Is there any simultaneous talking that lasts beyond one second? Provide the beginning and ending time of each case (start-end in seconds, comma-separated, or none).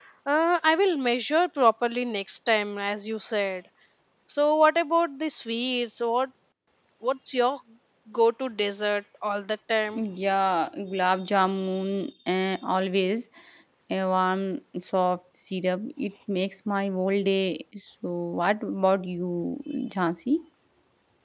none